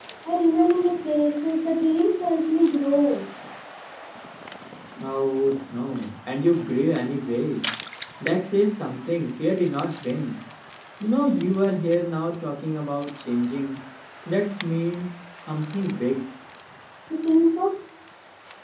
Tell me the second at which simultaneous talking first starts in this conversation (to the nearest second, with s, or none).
none